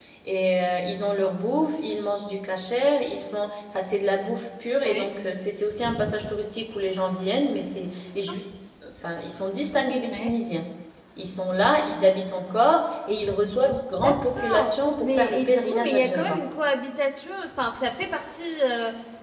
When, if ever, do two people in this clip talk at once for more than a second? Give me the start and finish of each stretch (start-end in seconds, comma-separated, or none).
14.0-16.4